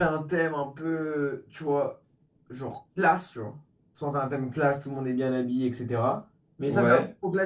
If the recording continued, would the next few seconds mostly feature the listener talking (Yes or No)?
No